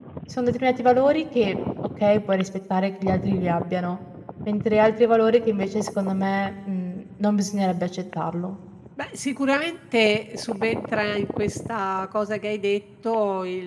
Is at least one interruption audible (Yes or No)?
No